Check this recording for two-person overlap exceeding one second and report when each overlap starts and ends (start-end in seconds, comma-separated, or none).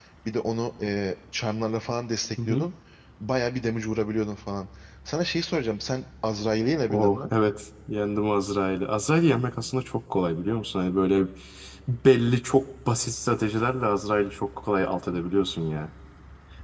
none